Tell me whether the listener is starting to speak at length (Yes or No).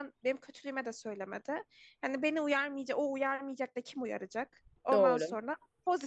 No